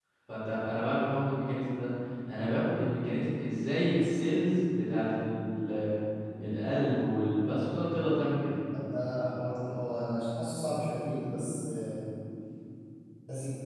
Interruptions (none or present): none